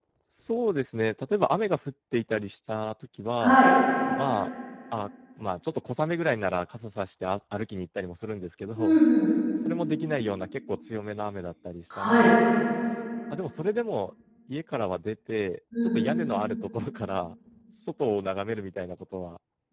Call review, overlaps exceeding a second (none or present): none